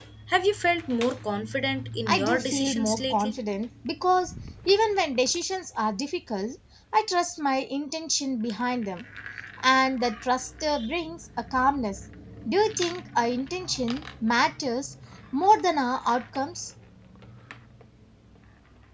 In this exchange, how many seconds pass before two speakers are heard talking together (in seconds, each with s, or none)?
2.1 s